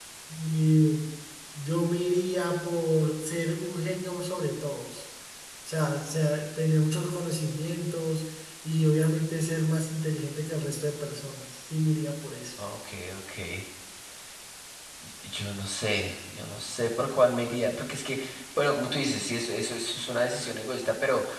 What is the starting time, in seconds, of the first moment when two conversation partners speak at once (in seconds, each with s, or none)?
none